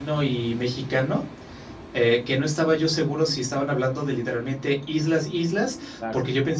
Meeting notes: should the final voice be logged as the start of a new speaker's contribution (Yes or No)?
No